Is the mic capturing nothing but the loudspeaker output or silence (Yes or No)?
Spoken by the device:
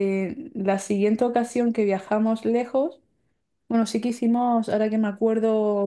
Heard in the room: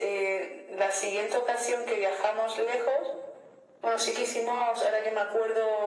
Yes